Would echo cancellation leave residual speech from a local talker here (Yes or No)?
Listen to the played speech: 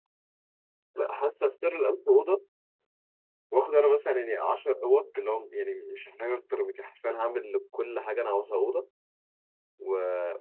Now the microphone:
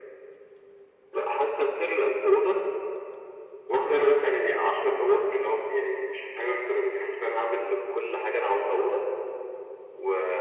No